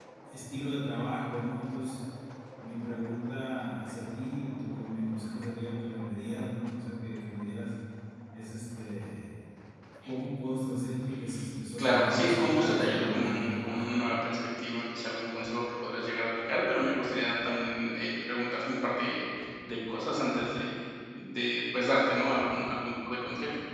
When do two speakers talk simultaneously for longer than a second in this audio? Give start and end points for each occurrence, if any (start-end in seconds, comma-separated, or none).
11.8-13.8